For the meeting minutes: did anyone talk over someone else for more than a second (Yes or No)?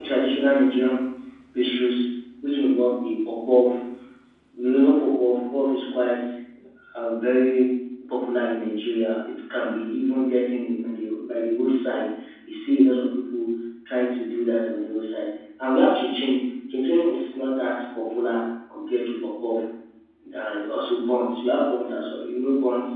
No